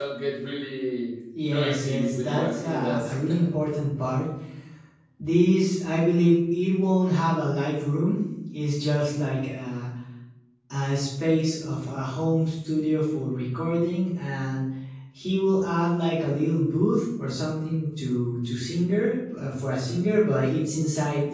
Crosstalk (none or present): present